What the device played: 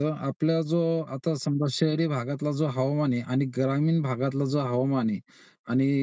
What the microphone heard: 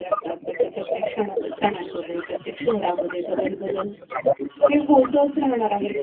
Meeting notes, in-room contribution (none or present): present